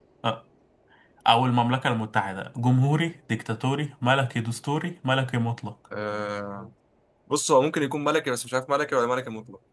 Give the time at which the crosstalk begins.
none

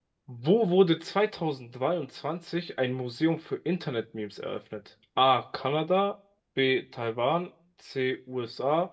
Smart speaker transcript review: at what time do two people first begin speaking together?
none

